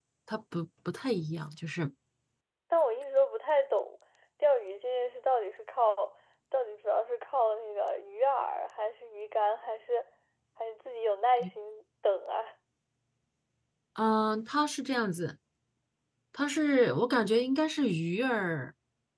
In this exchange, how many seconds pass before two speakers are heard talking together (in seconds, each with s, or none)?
none